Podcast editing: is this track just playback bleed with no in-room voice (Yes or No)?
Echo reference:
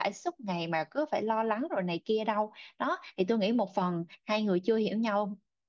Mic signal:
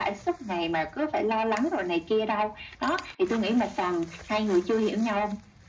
Yes